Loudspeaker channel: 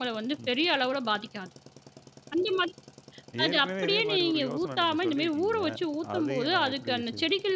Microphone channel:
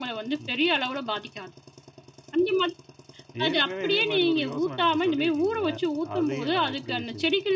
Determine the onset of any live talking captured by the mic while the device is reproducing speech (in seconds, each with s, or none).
none